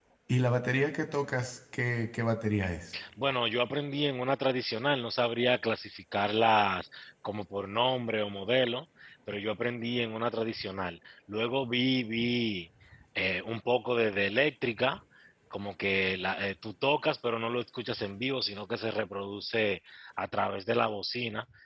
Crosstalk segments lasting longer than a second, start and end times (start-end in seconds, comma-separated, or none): none